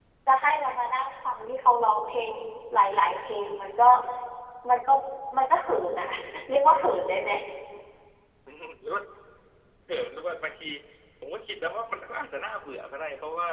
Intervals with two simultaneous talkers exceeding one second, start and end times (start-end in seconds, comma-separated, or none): none